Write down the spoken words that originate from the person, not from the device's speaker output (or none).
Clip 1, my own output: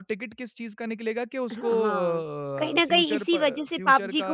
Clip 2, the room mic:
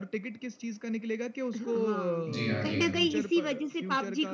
जी हाँ, जी हाँ।